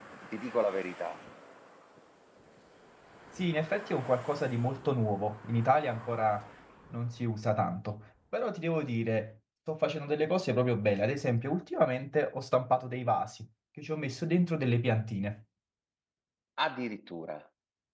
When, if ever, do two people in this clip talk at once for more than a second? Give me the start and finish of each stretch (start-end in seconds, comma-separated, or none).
none